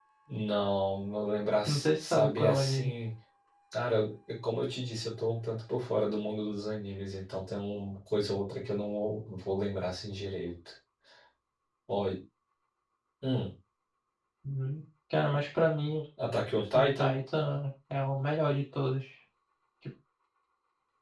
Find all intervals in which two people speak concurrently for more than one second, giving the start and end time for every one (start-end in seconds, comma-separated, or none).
1.7-2.9